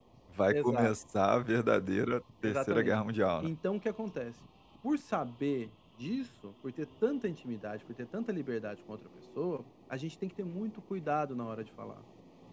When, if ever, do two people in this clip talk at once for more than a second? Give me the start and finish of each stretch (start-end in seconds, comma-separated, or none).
none